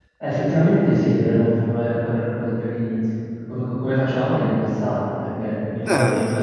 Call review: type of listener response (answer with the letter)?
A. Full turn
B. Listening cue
B